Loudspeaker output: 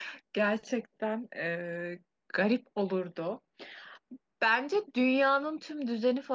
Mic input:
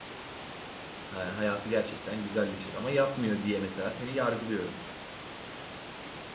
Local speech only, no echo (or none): ha- hayatı gerçekten güzelleşir ama yapmıyor diye mesela seni yargılıyorum.